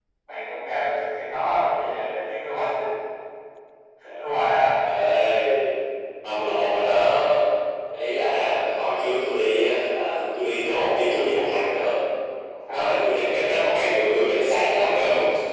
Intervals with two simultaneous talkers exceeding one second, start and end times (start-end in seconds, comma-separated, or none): none